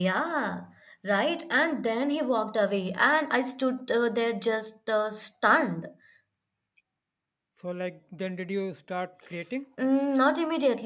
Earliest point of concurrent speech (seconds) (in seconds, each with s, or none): none